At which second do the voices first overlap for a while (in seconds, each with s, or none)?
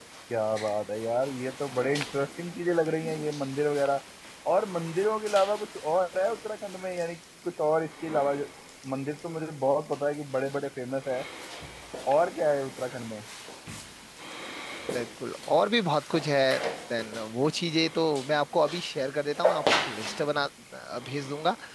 none